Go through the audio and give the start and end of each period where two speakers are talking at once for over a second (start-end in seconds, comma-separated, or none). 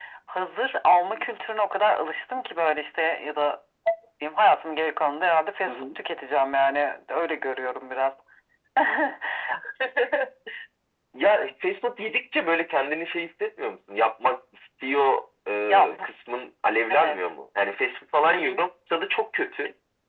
none